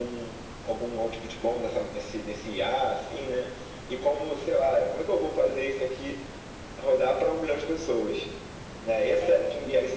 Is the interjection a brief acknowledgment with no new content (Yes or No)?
Yes